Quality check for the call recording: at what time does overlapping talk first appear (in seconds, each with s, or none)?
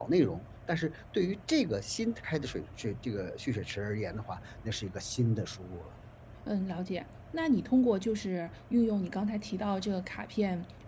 none